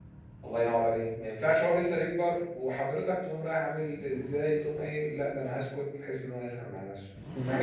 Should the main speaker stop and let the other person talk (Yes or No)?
No